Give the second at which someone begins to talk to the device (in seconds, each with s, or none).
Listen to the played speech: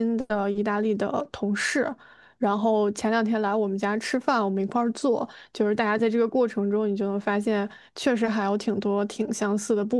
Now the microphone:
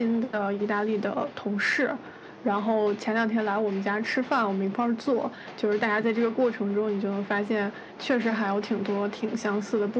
none